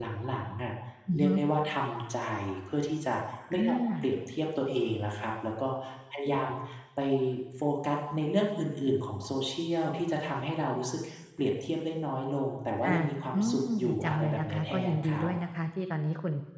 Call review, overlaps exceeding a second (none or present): present